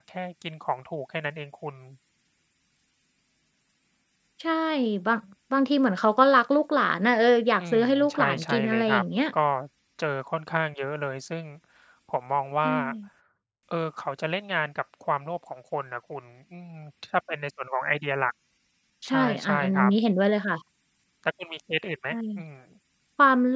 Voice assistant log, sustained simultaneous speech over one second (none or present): present